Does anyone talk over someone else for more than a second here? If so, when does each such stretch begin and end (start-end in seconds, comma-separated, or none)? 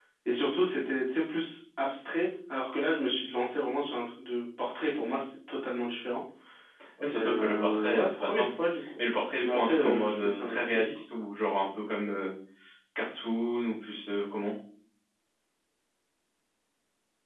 7.1-8.5, 9.4-10.9